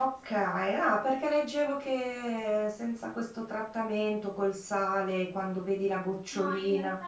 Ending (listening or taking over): taking over